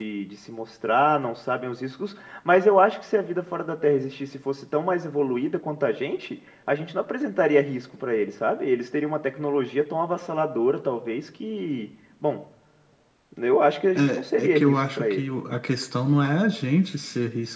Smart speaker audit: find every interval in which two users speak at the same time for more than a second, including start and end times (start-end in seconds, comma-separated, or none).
14.0-15.2